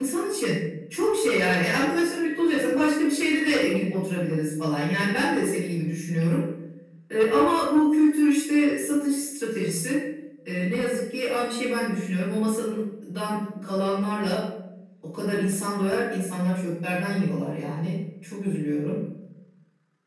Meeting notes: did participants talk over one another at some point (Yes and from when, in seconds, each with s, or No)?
No